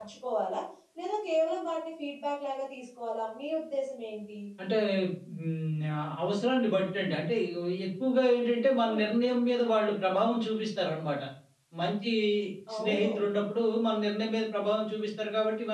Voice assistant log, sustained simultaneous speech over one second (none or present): none